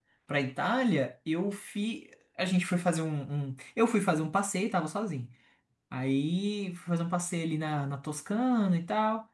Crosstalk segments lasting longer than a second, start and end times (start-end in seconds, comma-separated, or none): none